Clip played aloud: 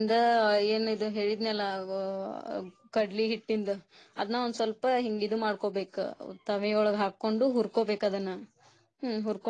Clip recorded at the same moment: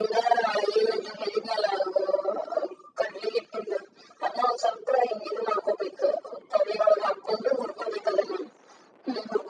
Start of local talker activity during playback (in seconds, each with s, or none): none